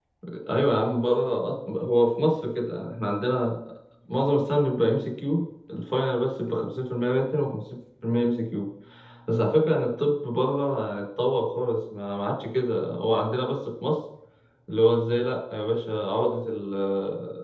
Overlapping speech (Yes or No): No